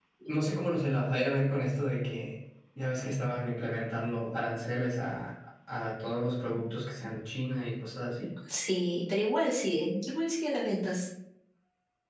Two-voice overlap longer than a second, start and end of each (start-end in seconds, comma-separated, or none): none